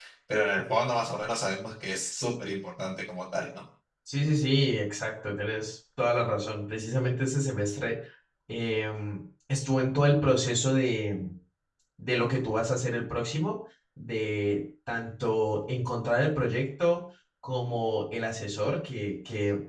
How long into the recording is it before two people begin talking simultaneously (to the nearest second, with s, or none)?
none